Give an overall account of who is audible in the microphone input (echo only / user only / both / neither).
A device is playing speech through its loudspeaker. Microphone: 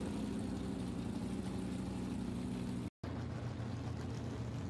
neither